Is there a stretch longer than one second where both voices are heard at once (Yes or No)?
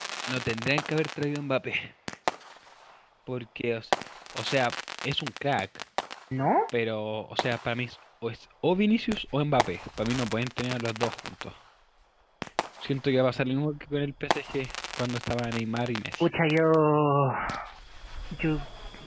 No